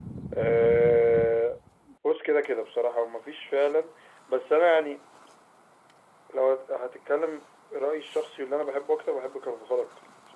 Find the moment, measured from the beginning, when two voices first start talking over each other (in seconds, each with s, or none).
none